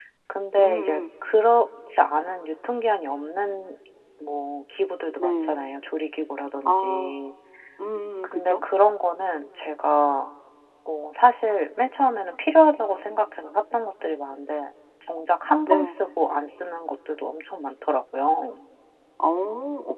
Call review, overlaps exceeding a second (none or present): none